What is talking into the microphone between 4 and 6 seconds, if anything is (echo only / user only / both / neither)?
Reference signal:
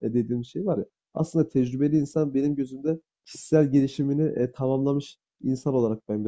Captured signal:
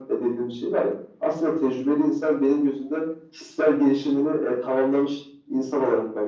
echo only